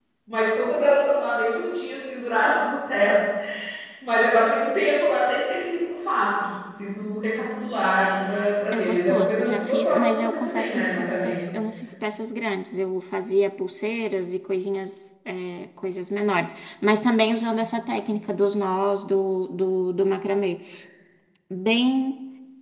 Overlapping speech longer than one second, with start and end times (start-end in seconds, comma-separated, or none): 8.7-11.4